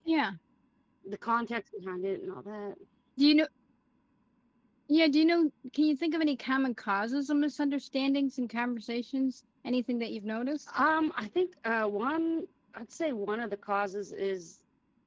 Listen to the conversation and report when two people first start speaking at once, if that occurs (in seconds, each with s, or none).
none